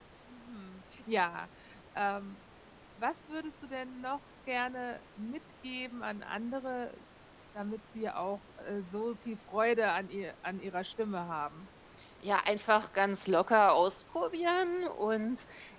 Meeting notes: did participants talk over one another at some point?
No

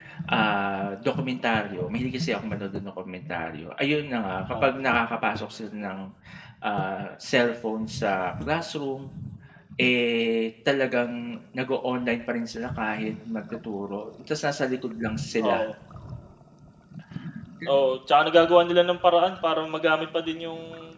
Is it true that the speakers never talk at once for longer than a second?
Yes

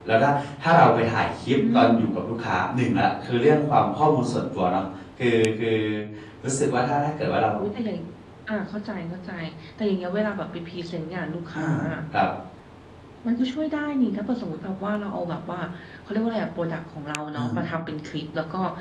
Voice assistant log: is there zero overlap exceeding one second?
Yes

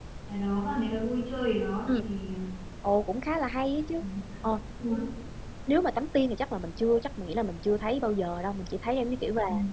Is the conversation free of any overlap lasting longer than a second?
Yes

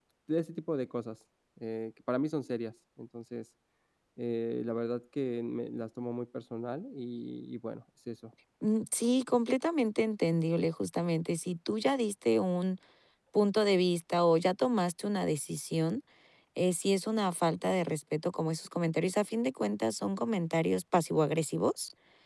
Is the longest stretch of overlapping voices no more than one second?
Yes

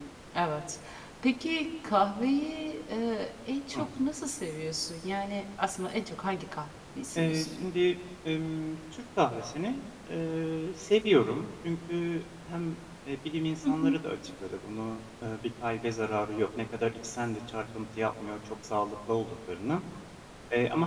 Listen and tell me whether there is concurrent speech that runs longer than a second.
No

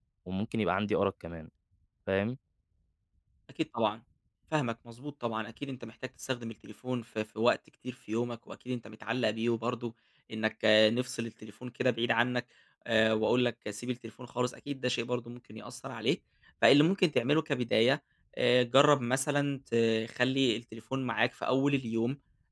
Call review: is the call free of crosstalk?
Yes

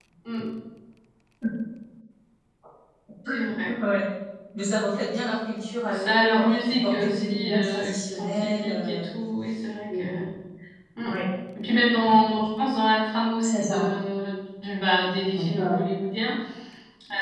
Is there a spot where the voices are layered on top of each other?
Yes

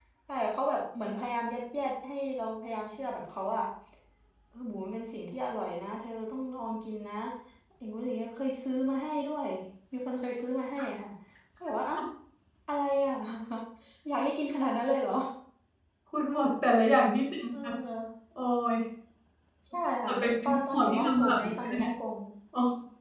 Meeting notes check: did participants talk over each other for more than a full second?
Yes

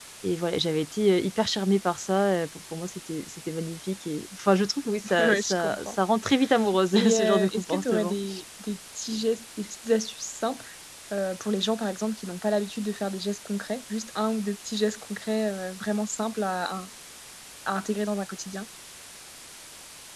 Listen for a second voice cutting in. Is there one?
Yes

